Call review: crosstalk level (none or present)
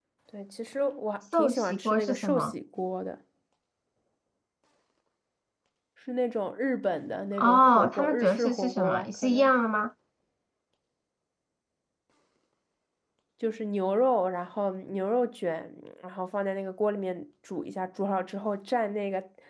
present